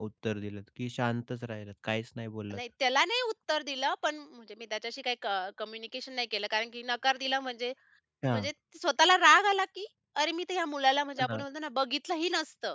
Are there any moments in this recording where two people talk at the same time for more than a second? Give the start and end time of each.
none

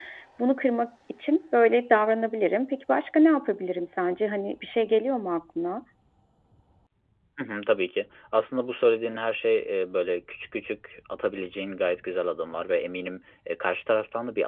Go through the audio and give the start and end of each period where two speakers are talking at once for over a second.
none

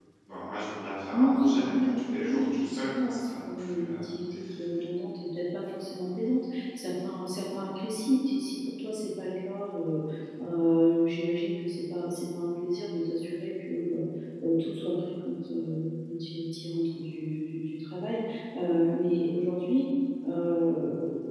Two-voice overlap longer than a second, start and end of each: 1.1-4.1

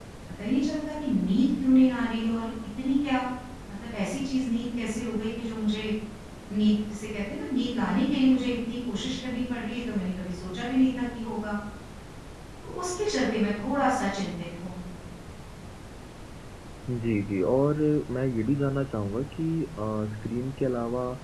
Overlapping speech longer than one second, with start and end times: none

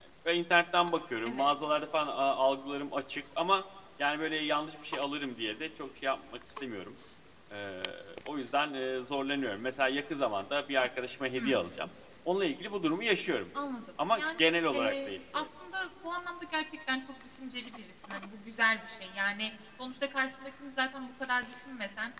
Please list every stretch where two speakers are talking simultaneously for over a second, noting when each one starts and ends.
14.1-15.5

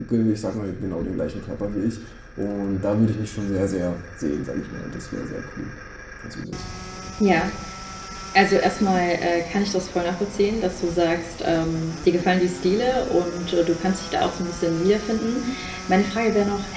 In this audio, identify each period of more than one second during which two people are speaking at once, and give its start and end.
none

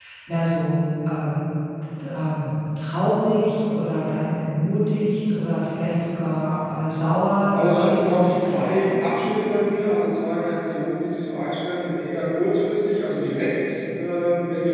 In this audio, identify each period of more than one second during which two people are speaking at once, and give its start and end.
7.5-8.9

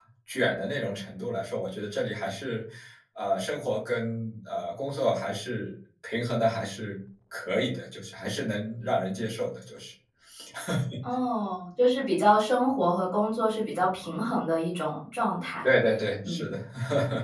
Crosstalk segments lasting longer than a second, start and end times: none

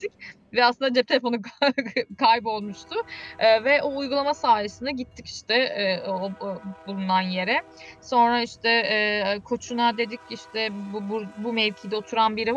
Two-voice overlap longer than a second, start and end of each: none

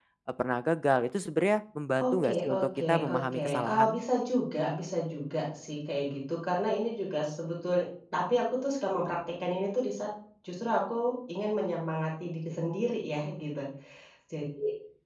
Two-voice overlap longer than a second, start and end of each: 2.0-4.0

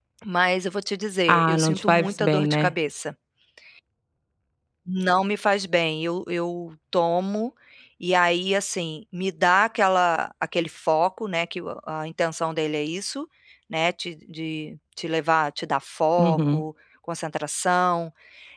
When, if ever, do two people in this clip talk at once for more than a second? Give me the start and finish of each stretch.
1.3-2.7

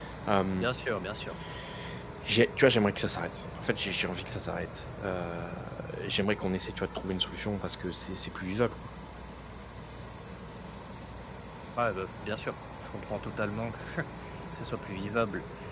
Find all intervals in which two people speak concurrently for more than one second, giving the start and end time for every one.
none

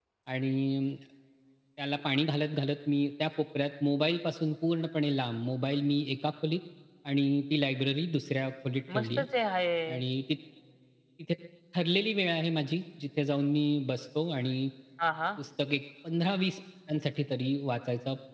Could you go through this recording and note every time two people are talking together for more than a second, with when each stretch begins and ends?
none

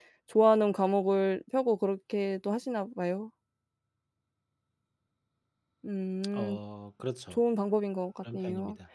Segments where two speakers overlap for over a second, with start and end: none

